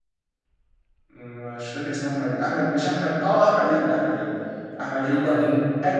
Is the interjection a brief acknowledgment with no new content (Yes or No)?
Yes